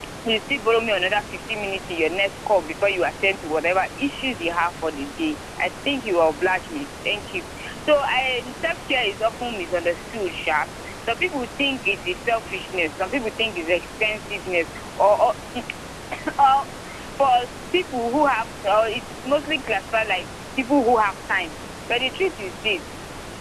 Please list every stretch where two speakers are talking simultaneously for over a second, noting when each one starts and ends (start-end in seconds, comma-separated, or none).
none